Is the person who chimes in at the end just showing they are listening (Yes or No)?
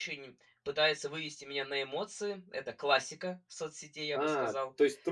No